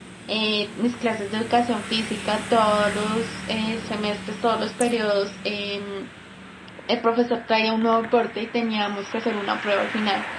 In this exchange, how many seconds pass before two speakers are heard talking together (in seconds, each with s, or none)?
none